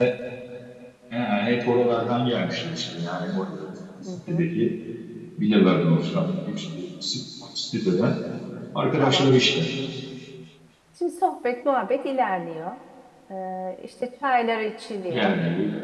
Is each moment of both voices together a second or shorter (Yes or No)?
Yes